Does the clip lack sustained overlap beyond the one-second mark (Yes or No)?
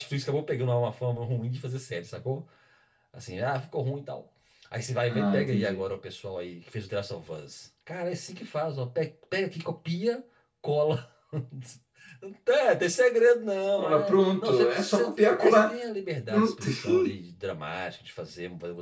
No